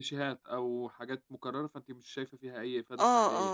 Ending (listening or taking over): taking over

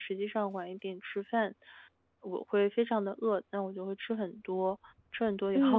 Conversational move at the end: taking over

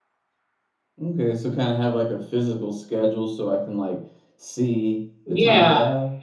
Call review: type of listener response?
taking over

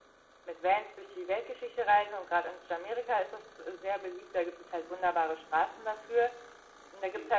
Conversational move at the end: listening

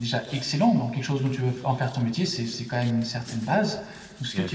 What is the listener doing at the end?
listening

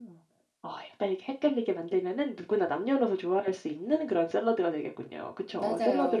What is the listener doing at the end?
taking over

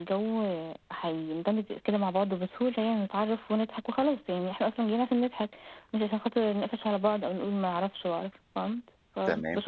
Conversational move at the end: taking over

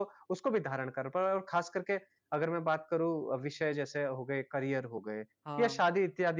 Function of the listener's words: listening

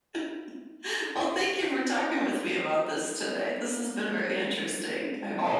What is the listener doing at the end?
taking over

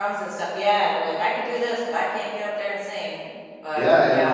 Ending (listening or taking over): taking over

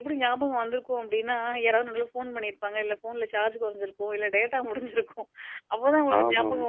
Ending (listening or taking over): listening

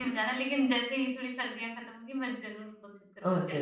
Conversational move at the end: taking over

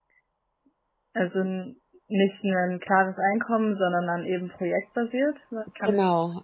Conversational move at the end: taking over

